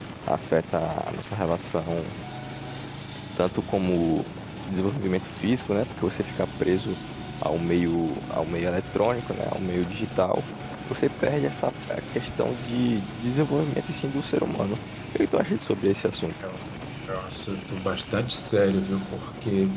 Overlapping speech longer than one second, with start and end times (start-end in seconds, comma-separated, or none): none